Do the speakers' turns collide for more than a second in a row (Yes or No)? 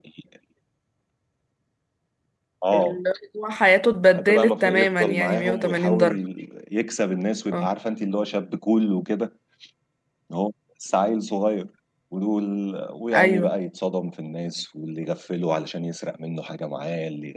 Yes